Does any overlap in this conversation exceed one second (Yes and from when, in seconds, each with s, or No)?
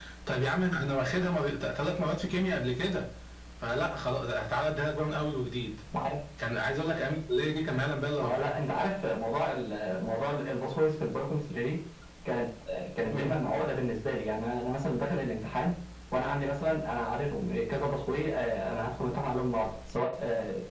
No